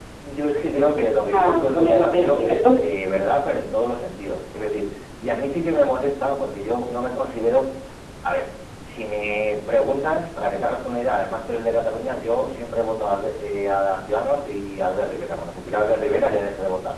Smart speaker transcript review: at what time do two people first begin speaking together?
1.3 s

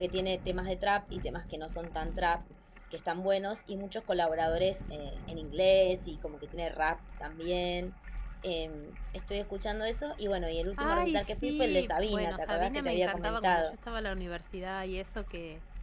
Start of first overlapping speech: 10.8 s

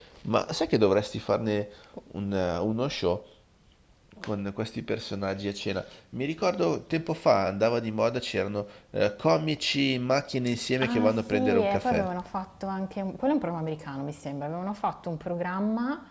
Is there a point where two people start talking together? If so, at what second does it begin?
10.8 s

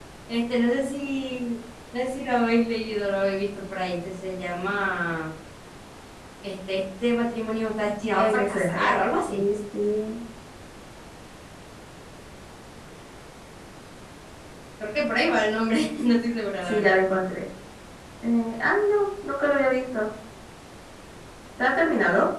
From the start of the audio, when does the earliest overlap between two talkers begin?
8.2 s

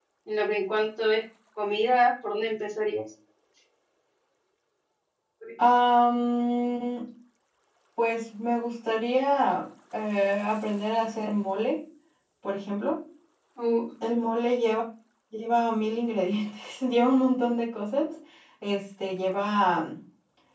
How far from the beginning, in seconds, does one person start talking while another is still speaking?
none

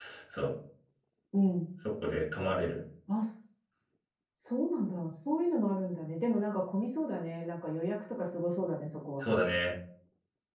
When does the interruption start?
none

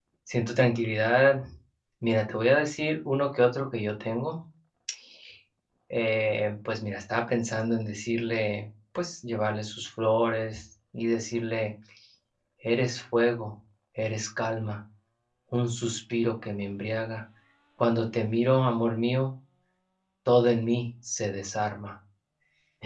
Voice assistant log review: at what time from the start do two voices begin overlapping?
none

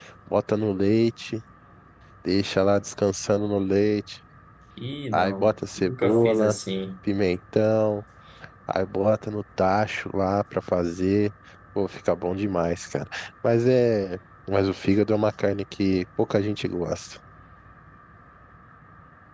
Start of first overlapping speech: 5.1 s

